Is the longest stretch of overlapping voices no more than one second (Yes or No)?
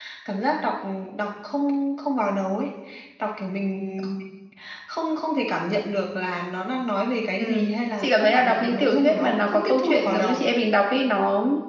No